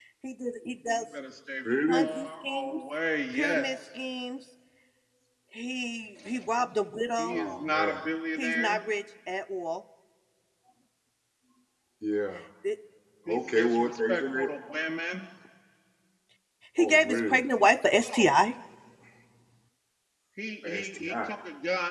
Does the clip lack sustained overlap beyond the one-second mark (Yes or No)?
No